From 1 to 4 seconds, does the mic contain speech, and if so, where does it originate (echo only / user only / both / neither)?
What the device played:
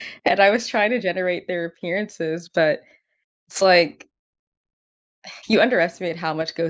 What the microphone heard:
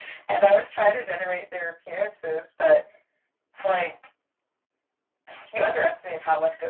echo only